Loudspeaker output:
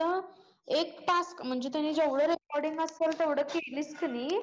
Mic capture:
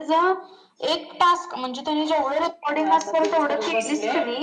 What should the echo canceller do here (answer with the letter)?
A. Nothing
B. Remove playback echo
B